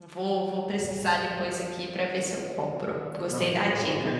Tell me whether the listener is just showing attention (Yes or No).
No